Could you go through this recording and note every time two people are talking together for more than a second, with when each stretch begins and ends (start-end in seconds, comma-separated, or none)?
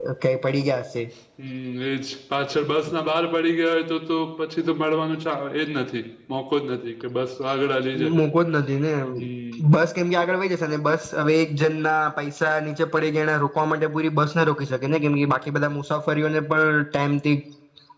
none